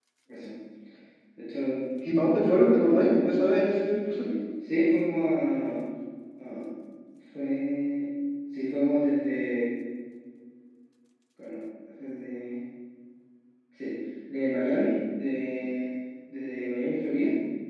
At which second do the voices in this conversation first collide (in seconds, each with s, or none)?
none